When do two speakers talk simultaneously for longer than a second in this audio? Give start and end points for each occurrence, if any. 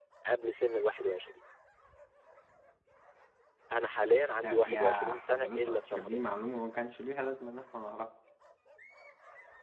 4.4-6.2

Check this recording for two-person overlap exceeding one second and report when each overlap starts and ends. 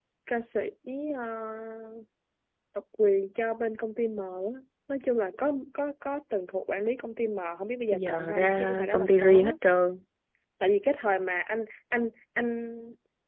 7.9-9.5

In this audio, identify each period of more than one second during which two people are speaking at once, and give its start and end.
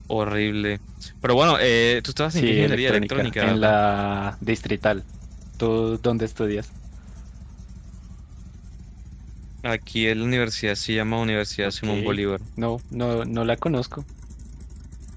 2.3-3.8

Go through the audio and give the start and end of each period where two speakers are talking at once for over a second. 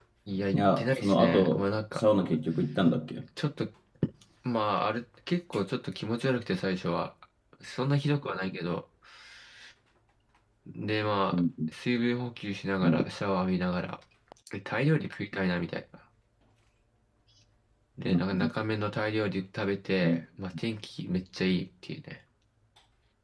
0.5-2.0

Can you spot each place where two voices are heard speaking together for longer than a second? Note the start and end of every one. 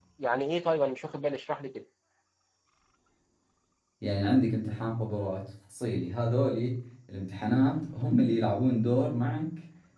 none

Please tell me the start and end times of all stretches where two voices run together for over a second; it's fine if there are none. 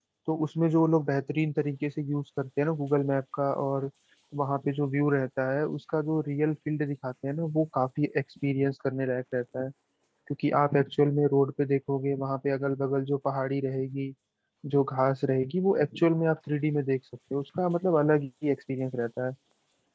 none

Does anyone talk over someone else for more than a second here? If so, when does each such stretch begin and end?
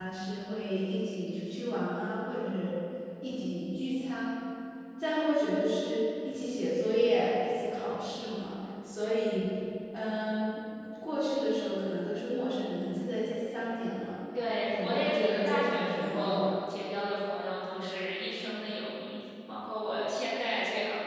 14.7-16.4

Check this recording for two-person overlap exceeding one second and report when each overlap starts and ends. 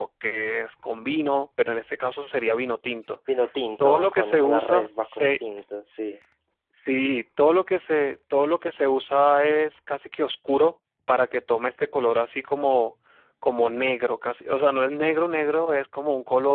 3.8-5.3

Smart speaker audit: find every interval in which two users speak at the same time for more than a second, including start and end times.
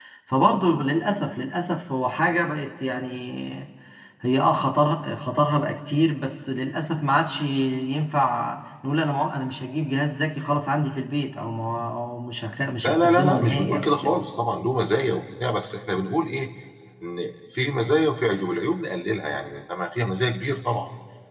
12.8-14.1

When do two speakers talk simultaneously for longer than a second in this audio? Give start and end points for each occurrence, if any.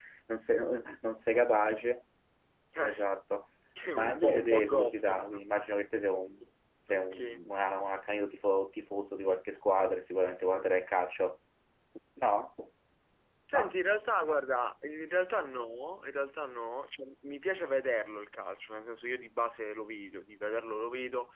4.0-5.4

